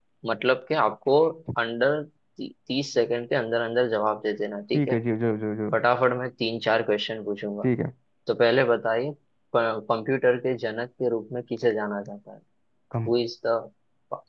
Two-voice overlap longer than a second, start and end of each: none

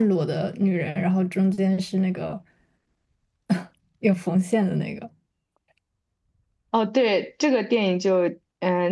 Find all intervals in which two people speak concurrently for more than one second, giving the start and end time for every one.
none

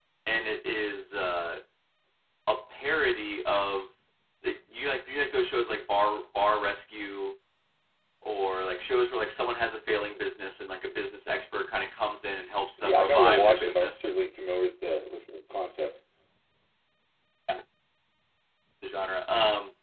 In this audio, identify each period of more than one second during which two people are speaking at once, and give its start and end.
12.8-14.1

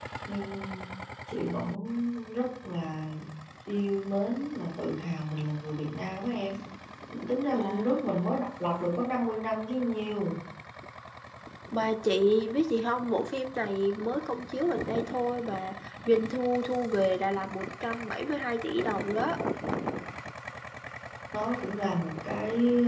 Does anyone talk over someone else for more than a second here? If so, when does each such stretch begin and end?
none

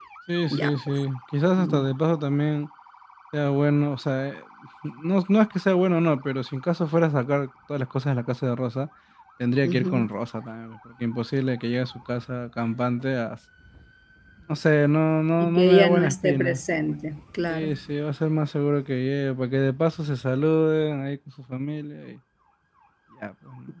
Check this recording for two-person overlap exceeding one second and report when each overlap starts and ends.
15.4-16.6

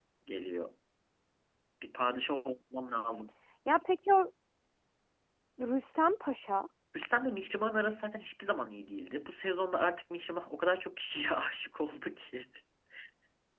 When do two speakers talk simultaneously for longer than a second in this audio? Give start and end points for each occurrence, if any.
none

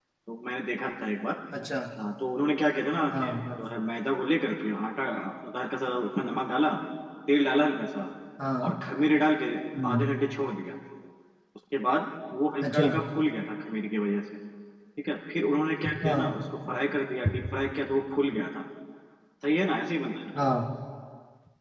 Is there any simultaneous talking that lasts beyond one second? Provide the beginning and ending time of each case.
none

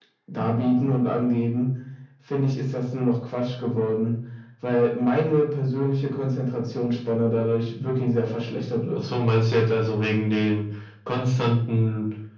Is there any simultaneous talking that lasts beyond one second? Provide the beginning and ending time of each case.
none

